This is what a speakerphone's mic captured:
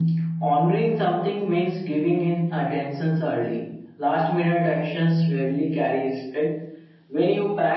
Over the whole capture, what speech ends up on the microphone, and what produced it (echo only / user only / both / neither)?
echo only